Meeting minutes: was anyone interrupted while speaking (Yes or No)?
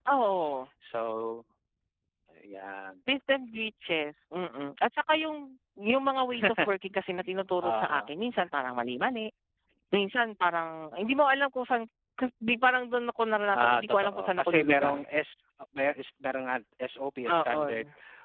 Yes